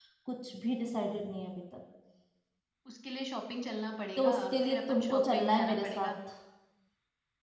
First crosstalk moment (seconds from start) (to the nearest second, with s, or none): 4 s